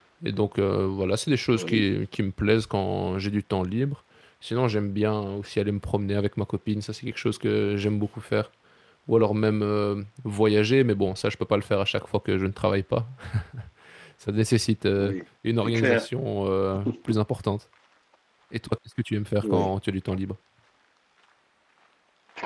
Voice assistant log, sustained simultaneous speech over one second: none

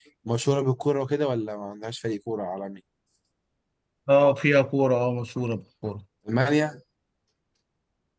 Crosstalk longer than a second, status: none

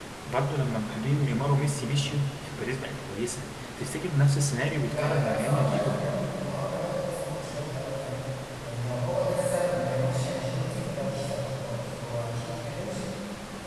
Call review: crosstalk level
present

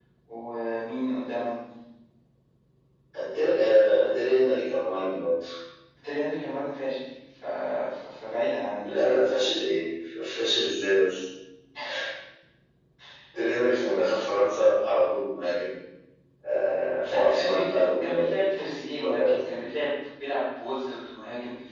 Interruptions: present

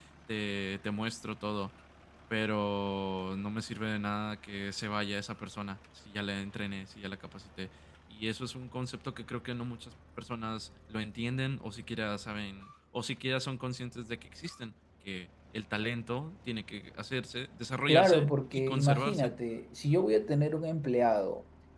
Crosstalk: present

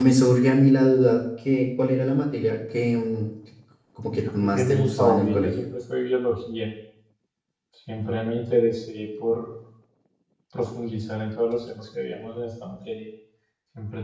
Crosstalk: present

